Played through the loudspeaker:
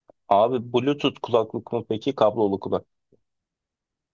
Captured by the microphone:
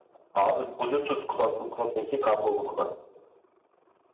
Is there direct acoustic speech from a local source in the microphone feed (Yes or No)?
No